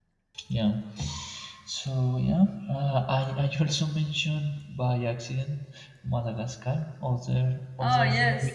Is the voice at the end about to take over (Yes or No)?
No